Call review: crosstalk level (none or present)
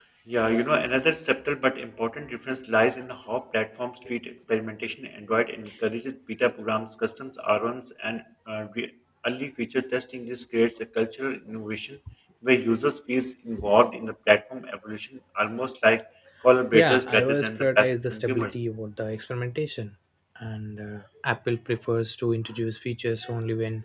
present